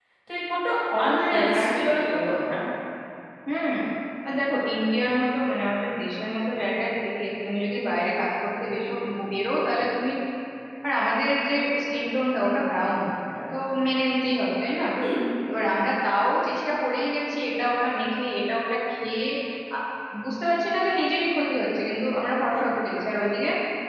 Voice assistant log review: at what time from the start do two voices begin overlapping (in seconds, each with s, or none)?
1.0 s